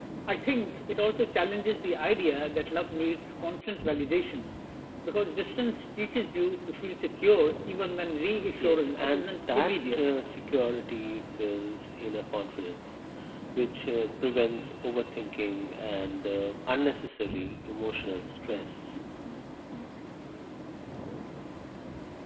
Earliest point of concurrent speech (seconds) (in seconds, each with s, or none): 8.6 s